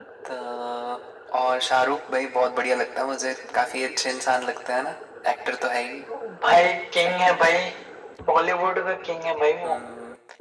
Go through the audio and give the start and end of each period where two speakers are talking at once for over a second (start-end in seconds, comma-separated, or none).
none